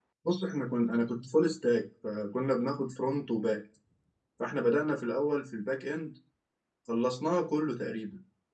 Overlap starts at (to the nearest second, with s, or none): none